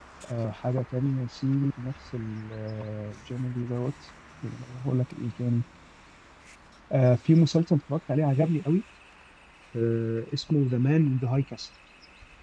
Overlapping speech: No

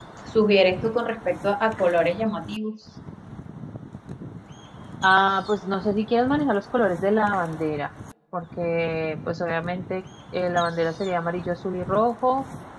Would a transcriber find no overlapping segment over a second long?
Yes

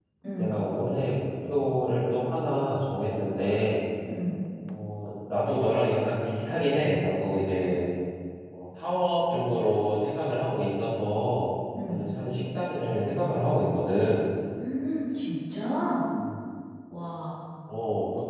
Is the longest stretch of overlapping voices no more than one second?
Yes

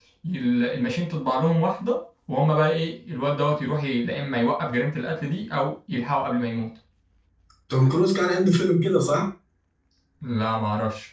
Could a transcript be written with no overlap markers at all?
Yes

